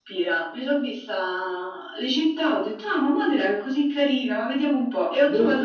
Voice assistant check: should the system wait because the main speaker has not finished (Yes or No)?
Yes